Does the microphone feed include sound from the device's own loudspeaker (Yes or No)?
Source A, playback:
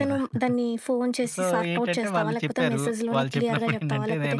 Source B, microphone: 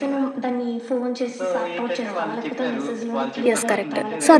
Yes